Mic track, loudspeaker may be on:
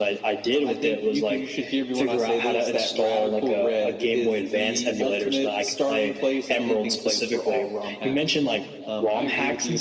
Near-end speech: none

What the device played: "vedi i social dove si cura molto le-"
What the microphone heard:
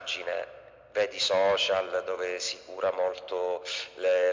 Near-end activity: none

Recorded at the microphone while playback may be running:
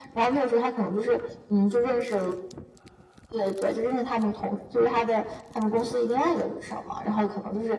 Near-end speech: none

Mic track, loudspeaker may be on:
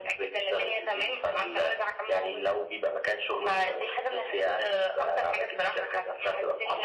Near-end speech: none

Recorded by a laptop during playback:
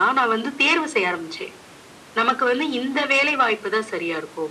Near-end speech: none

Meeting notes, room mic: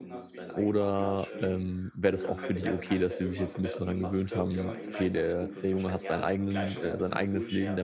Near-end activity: present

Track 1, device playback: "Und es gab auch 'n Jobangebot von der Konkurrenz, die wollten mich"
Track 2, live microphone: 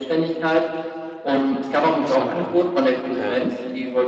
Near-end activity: present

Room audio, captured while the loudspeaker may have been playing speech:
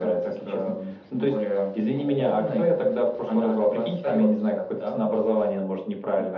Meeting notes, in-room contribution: none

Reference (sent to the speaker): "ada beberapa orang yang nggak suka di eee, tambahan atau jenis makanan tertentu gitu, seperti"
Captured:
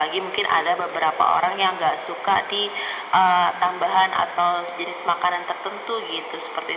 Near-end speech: none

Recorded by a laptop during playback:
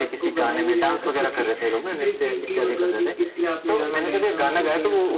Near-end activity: present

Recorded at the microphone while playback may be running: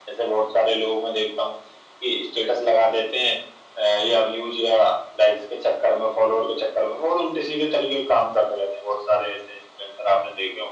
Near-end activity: none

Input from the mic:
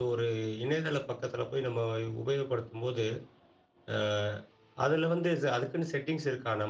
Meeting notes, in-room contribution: present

